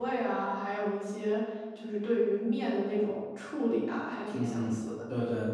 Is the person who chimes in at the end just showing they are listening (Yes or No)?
No